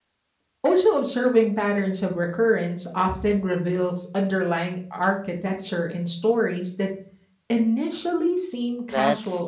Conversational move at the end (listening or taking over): taking over